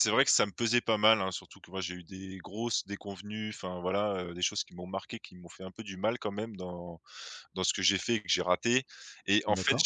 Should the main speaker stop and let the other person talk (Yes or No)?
No